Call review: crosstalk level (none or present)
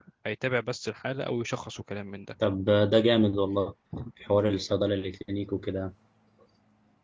none